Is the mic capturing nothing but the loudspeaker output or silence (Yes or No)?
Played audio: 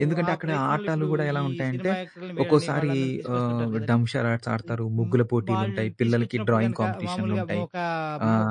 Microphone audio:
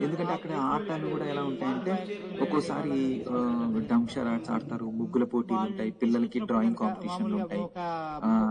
No